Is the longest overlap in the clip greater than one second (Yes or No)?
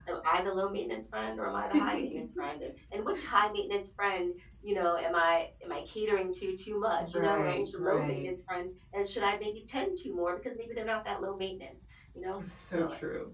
Yes